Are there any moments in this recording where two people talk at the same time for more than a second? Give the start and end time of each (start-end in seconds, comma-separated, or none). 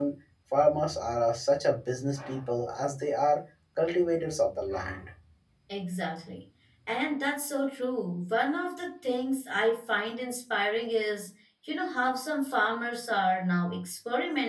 none